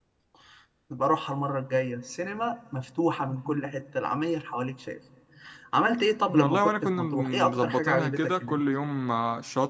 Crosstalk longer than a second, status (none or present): present